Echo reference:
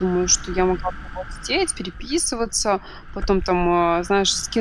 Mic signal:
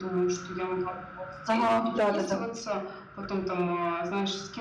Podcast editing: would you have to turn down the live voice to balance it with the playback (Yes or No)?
Yes